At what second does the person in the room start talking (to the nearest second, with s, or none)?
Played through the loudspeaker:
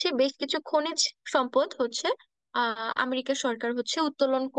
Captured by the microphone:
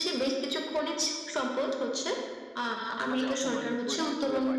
3 s